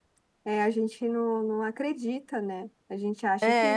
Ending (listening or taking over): listening